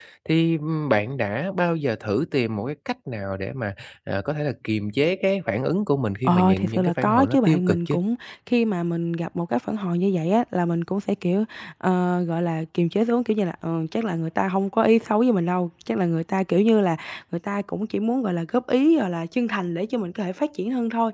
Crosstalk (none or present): present